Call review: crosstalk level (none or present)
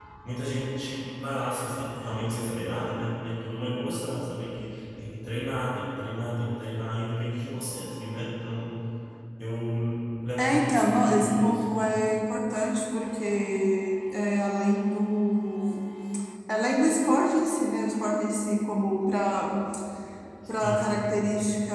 present